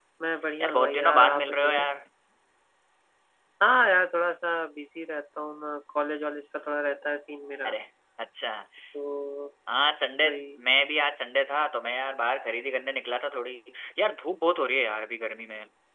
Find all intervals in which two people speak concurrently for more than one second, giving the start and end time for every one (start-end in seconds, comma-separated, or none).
0.6-1.9